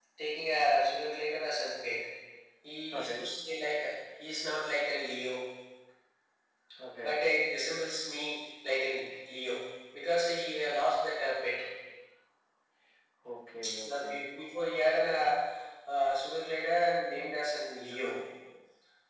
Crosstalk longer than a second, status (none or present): none